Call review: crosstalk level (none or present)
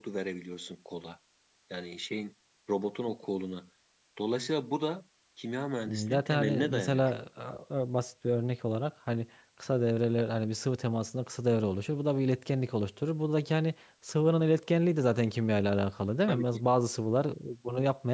present